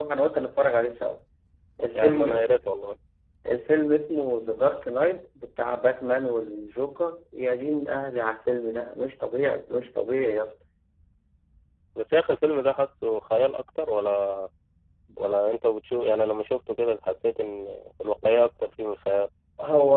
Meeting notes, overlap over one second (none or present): none